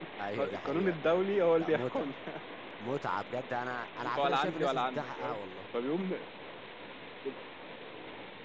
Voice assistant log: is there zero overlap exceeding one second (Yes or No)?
No